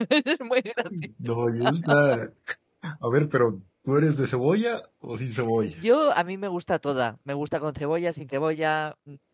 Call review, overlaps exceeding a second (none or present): none